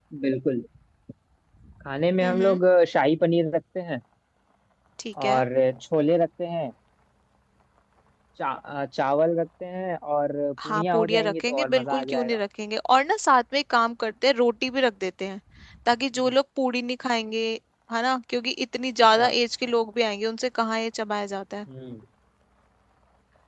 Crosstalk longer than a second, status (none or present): present